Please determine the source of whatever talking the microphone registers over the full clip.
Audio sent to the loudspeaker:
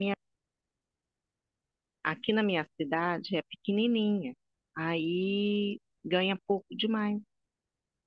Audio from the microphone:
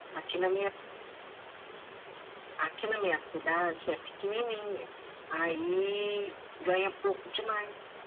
echo only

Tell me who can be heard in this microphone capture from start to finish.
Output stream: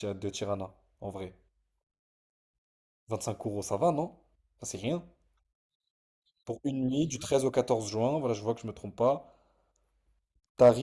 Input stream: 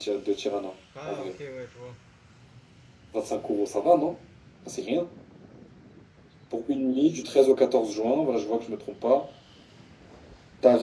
both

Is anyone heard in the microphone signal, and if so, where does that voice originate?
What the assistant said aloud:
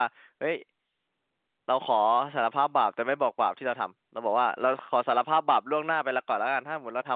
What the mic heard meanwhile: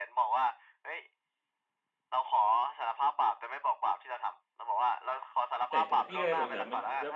both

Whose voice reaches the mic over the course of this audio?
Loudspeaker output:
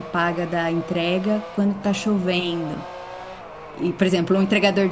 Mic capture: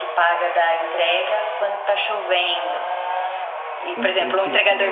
both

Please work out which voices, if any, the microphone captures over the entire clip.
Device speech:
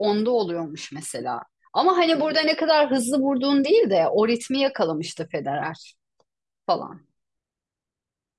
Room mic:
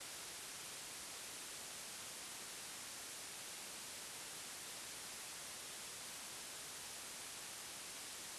neither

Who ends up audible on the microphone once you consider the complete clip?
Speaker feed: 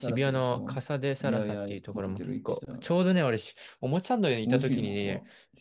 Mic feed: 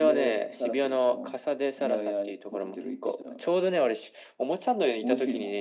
echo only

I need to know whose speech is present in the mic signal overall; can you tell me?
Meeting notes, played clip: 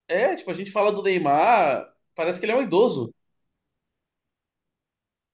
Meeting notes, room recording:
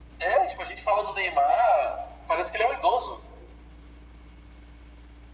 echo only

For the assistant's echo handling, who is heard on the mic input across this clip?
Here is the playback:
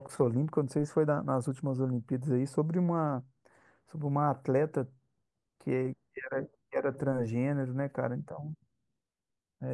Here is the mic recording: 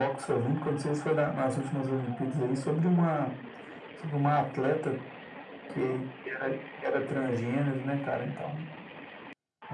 echo only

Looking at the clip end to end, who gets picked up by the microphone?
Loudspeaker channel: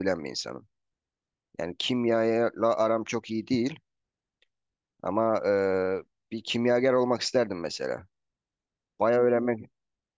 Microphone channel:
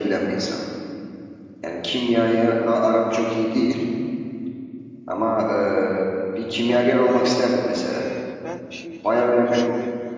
both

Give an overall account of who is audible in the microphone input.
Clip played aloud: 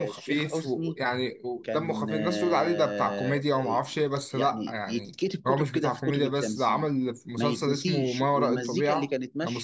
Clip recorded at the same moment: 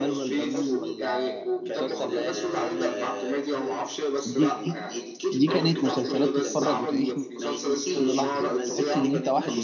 both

